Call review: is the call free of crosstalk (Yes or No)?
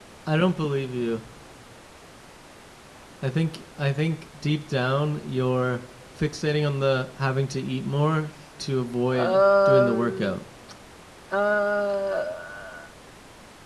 No